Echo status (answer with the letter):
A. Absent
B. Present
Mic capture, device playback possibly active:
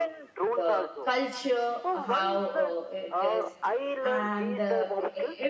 B